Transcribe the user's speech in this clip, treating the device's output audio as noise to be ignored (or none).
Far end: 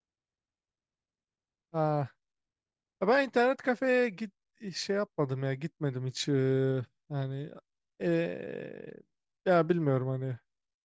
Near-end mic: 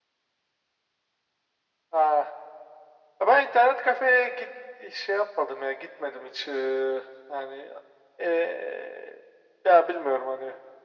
none